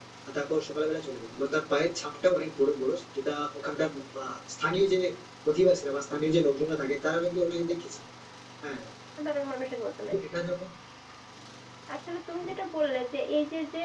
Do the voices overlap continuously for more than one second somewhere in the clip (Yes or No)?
No